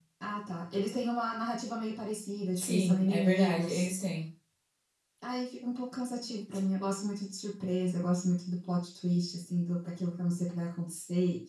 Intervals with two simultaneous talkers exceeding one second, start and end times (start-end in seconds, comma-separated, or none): 2.5-3.9